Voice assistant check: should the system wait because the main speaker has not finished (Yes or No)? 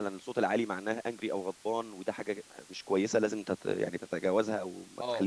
No